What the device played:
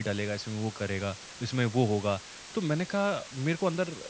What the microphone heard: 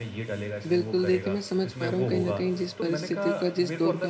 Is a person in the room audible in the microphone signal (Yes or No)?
Yes